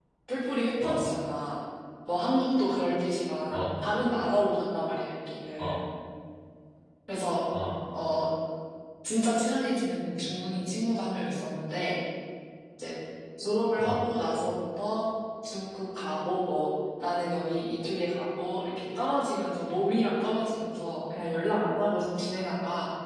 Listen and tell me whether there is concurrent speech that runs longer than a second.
No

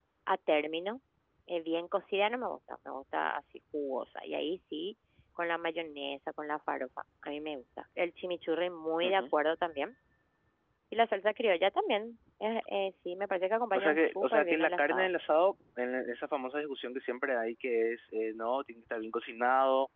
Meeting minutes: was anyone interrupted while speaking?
Yes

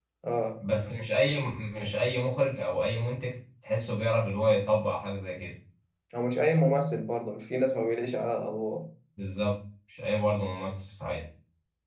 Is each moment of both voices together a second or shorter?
Yes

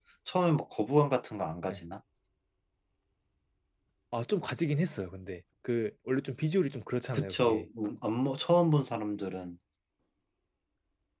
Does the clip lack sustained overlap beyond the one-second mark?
Yes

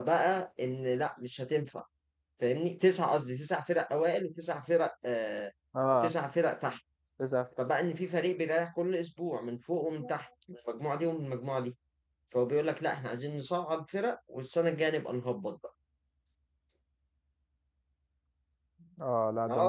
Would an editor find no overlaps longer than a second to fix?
Yes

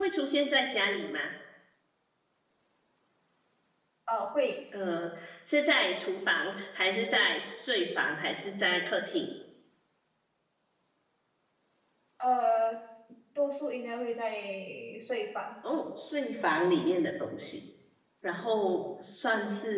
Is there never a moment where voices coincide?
Yes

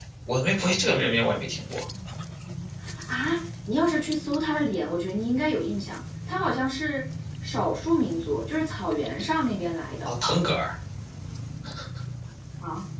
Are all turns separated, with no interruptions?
Yes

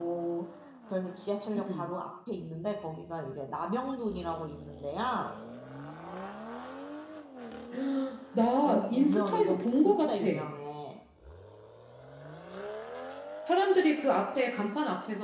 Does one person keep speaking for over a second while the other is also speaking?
Yes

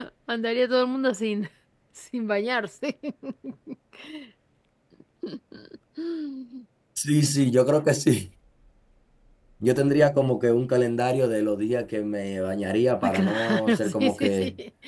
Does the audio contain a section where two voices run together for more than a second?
Yes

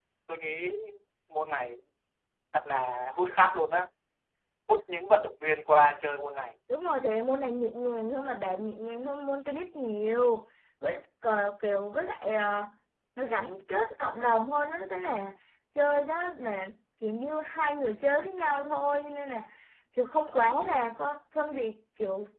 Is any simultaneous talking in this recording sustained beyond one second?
No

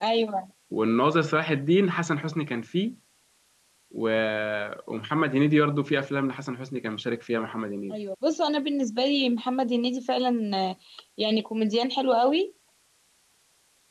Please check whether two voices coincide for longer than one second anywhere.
No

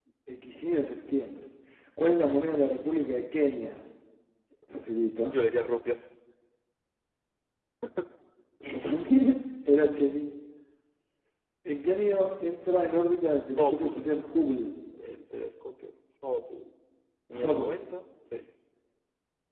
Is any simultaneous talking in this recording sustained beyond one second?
No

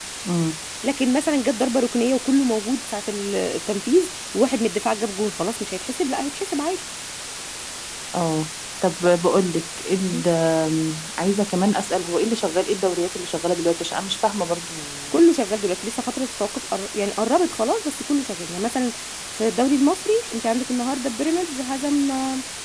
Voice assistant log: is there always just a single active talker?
Yes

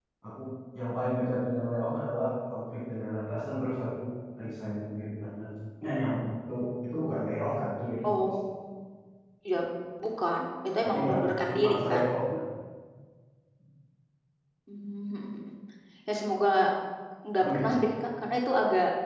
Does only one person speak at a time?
No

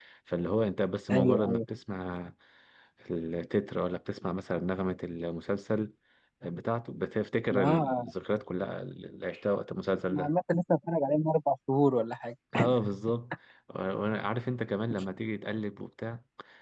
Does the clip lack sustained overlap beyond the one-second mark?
Yes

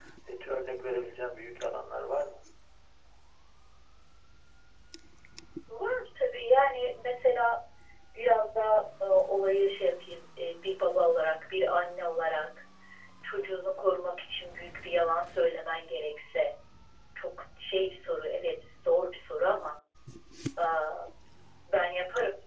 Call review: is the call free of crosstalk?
Yes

